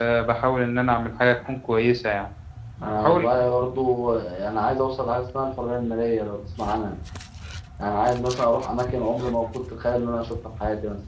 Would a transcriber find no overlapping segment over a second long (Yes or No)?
Yes